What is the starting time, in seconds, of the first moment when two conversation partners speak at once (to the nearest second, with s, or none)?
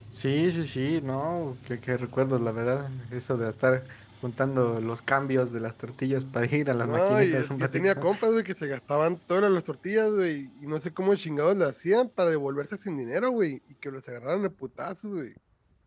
7 s